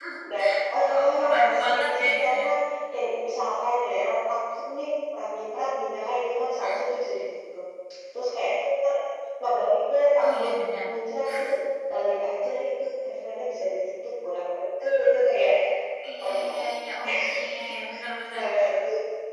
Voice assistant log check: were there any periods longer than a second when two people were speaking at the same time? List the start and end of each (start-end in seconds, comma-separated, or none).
0.8-2.5